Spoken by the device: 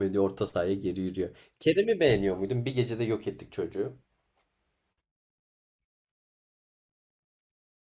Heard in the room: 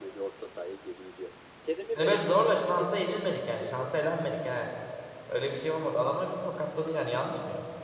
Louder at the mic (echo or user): user